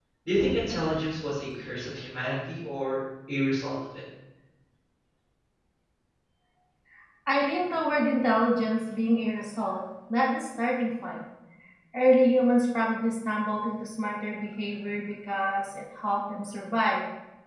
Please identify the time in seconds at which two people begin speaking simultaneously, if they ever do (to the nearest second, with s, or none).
none